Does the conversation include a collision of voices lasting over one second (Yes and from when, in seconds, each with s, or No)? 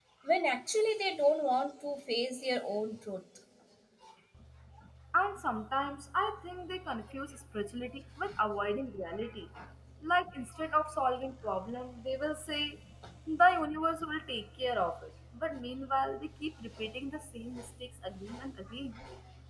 No